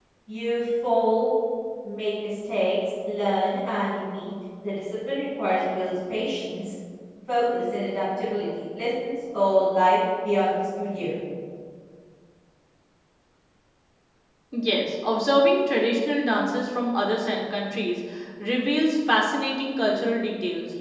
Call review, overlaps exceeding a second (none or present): none